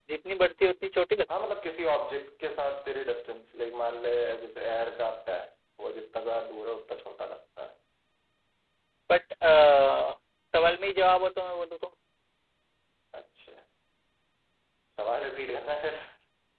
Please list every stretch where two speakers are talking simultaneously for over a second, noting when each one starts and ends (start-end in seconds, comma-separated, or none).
none